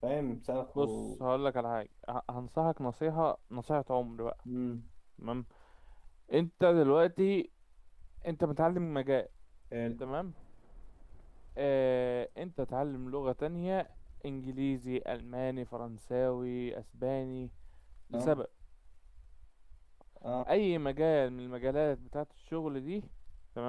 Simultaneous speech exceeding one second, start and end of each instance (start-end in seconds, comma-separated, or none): none